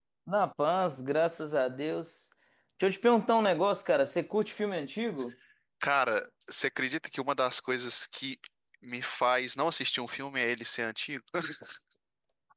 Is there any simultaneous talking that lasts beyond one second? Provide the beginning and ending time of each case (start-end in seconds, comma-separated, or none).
none